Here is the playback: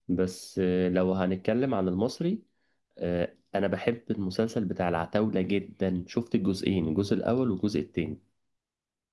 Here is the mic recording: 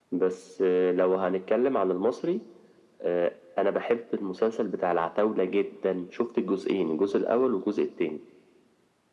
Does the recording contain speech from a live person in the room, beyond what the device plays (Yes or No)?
No